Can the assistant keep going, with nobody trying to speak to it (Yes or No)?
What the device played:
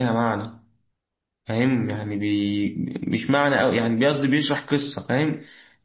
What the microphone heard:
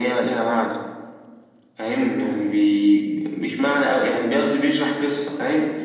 Yes